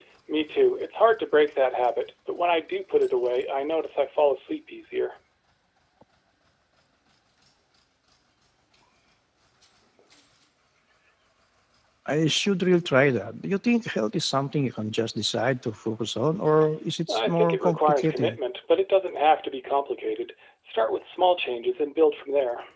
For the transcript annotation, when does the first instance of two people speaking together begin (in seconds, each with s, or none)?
17.1 s